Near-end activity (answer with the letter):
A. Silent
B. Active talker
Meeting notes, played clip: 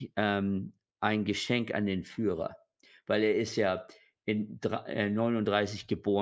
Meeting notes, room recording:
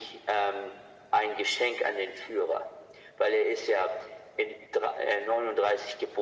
A